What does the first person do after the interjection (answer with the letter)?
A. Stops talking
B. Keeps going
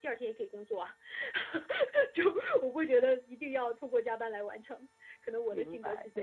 A